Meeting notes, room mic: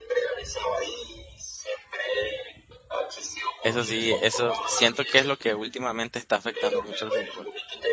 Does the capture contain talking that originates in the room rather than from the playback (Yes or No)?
Yes